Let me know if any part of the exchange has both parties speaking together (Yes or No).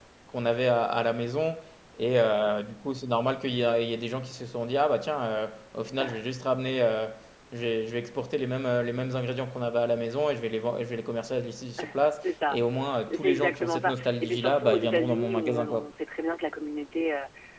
Yes